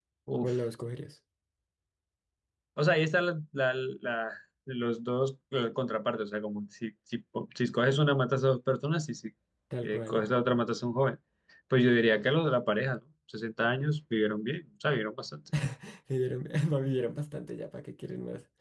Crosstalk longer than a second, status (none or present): none